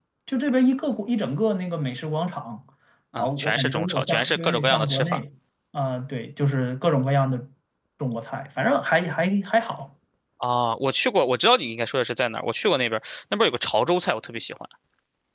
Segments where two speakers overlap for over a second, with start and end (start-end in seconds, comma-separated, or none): 3.2-5.2